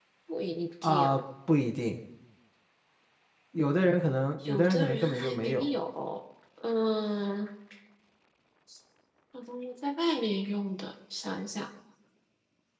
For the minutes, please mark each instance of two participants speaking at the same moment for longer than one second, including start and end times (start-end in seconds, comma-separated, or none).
4.5-5.7